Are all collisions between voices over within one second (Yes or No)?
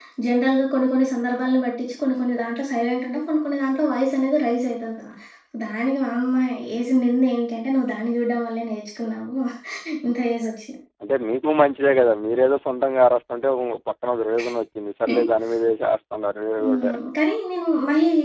Yes